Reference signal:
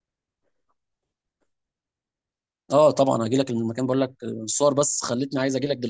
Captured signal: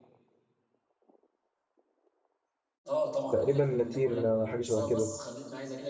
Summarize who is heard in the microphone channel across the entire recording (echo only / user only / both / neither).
both